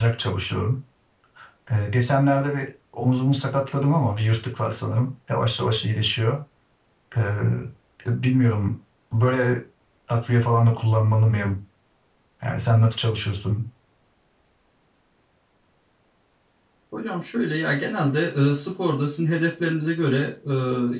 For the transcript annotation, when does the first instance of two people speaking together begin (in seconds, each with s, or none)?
none